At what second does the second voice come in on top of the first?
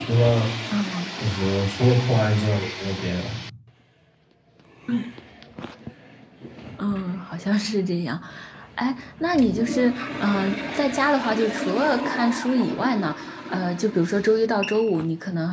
none

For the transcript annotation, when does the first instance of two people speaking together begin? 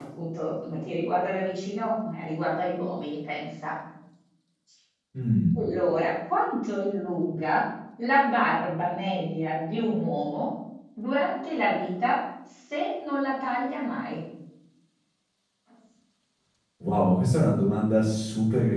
none

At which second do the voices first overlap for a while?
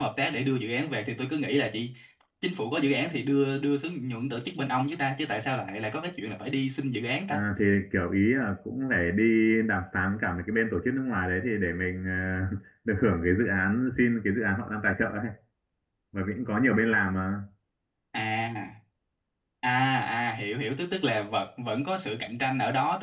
none

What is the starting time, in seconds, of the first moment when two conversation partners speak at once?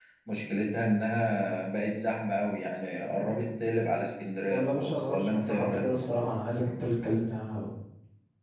4.5 s

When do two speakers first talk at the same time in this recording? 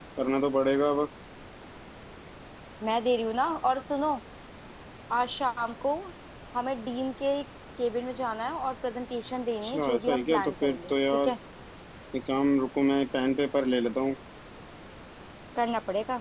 9.6 s

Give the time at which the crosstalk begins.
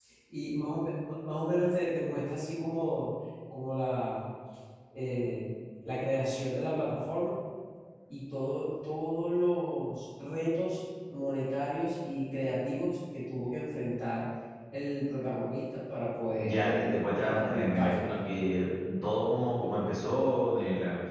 16.4 s

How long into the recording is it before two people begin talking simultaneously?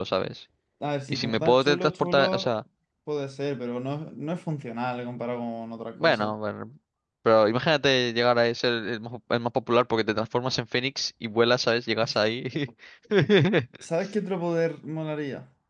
1.1 s

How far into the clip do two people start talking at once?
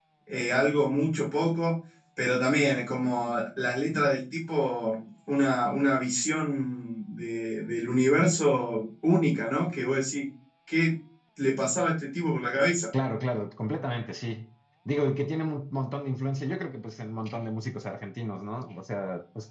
none

